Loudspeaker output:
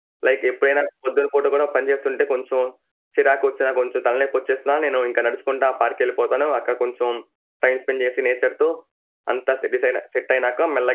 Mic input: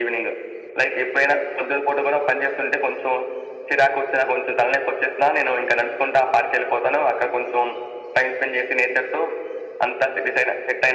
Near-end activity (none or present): none